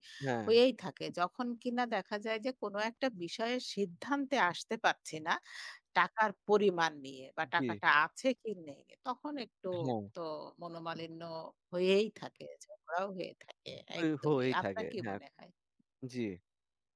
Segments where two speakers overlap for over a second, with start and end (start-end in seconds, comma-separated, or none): 14.0-15.2